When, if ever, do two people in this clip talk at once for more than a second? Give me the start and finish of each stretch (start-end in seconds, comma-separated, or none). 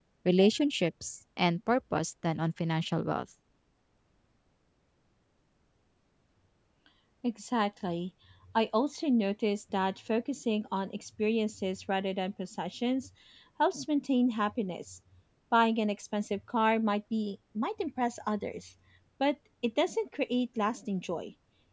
none